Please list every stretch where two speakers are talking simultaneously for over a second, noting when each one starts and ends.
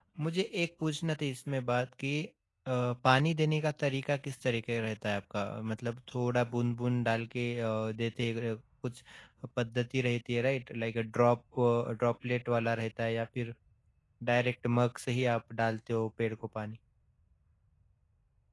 none

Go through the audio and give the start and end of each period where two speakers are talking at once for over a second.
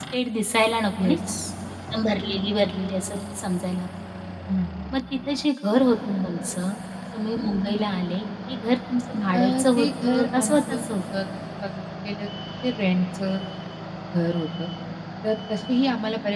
9.4-10.8

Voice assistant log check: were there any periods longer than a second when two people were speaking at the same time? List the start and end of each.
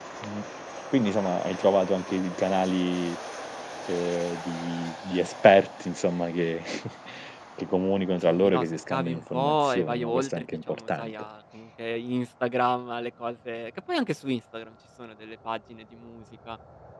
8.2-11.1

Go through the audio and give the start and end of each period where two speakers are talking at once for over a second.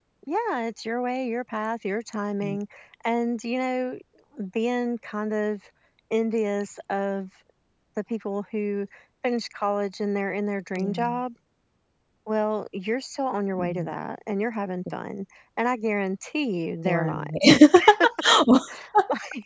none

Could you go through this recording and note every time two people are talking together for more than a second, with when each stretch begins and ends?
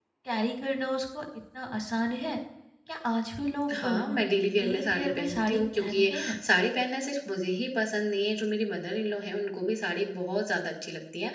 4.6-6.4

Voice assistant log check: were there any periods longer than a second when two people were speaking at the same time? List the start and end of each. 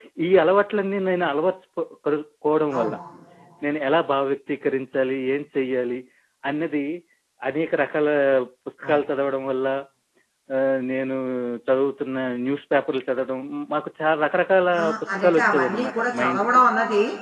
14.8-16.5

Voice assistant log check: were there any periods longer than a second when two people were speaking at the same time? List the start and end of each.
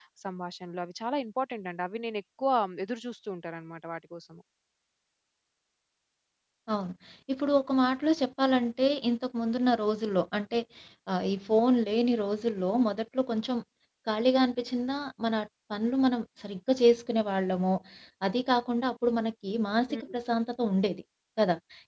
none

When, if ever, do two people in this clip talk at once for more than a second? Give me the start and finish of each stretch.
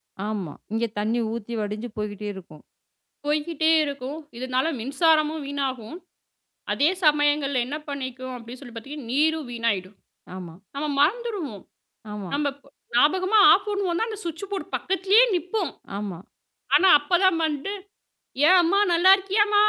none

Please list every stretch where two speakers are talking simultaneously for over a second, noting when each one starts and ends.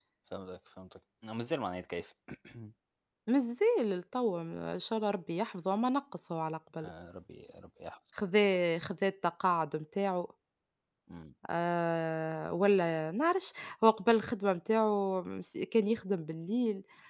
none

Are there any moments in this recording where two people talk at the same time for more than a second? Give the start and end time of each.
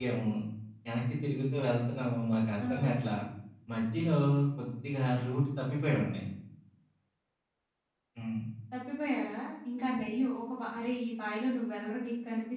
none

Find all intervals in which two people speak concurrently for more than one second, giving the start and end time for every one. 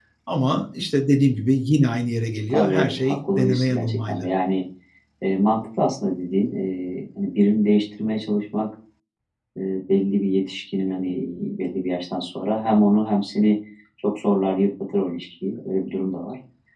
2.5-4.2

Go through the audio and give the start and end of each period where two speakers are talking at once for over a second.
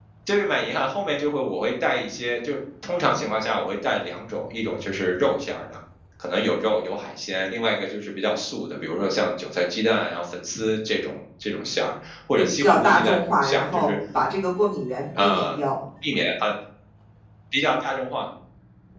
12.4-14.0

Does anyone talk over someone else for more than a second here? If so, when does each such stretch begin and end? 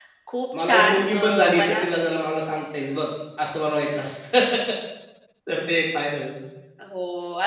0.6-1.8

